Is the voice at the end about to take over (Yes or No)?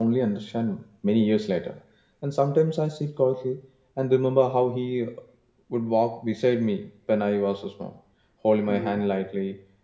No